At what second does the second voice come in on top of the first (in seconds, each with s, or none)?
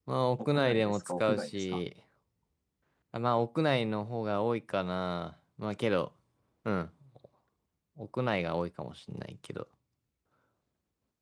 0.6 s